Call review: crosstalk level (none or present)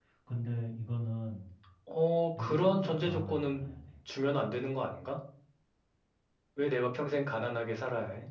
present